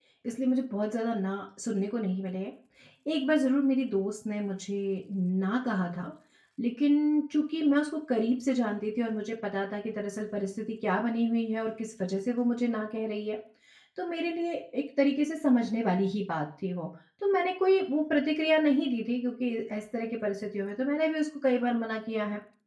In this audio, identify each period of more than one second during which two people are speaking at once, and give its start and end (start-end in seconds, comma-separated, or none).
none